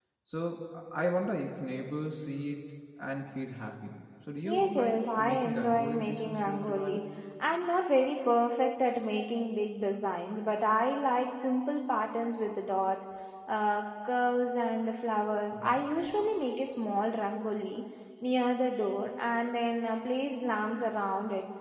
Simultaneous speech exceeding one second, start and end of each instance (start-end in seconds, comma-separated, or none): 4.4-7.0